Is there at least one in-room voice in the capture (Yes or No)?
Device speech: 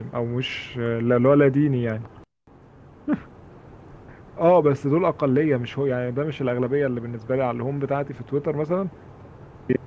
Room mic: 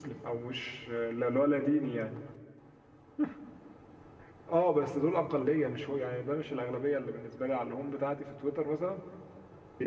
No